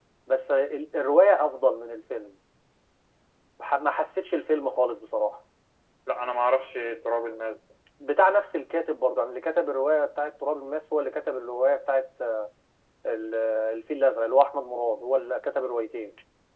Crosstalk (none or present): none